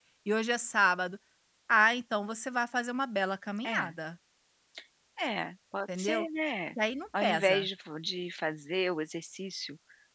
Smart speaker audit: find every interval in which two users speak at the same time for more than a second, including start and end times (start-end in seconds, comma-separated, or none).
none